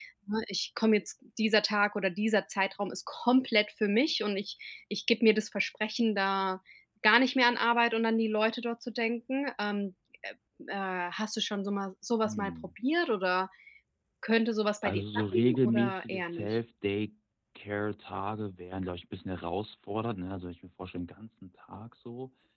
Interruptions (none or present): present